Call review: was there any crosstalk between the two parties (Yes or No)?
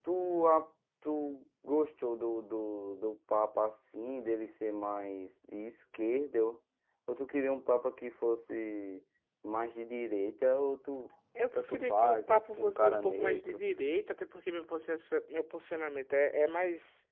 Yes